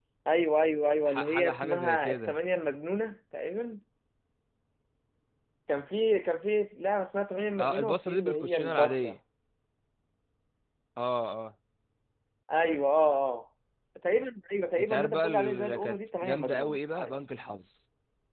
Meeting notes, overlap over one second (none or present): present